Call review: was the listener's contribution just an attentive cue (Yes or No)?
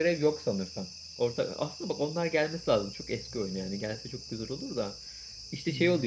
Yes